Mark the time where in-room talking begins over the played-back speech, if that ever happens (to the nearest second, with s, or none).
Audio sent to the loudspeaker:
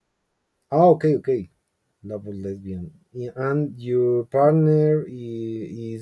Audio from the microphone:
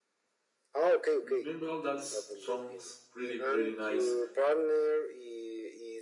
1 s